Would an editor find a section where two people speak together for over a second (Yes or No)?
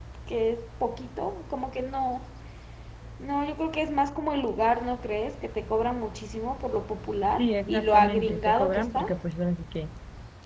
Yes